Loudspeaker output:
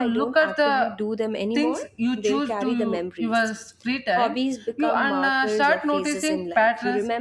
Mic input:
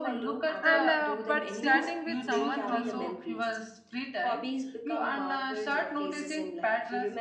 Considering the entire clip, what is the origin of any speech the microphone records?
both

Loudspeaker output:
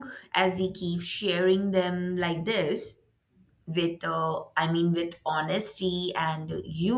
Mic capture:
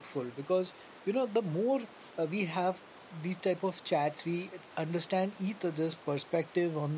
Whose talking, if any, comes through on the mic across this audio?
user only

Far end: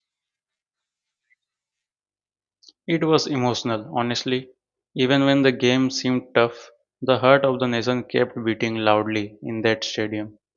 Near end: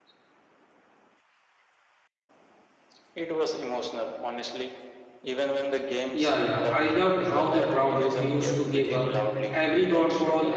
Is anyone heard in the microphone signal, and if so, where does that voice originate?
both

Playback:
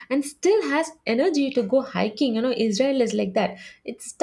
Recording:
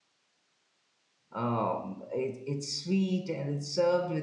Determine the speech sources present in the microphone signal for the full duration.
user only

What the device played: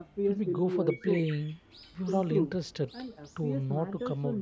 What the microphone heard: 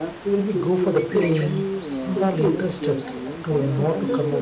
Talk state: both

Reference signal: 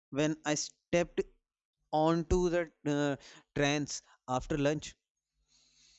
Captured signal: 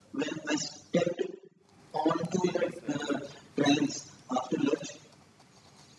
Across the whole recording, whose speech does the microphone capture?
both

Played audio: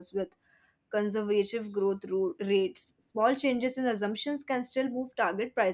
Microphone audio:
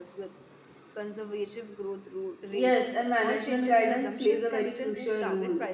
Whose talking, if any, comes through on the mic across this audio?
both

